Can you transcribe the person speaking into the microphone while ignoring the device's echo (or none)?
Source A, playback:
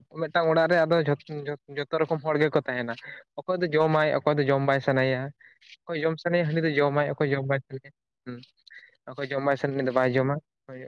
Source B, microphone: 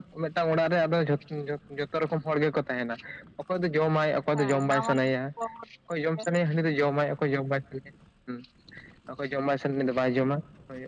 ᱦᱮᱸ ᱱᱟᱣᱟᱱ ᱠᱚ ᱛᱚᱨᱯᱚᱨᱮ